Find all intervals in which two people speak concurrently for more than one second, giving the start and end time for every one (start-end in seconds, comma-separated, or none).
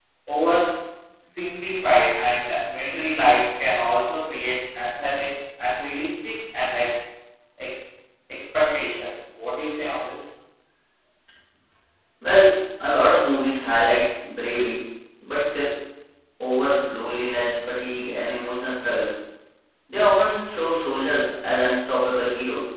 none